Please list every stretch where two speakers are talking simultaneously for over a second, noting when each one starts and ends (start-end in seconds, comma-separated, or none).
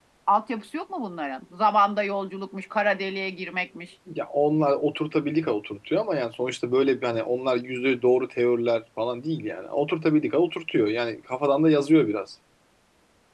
none